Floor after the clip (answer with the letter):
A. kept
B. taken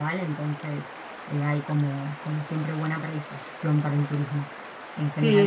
B